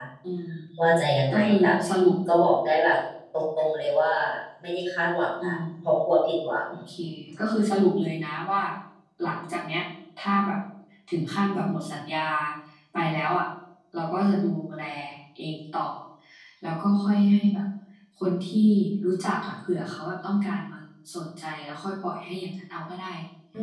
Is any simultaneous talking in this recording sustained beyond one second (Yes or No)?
No